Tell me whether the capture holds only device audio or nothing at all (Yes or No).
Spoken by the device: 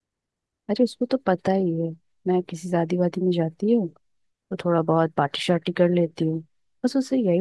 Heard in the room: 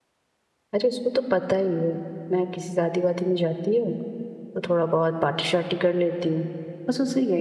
Yes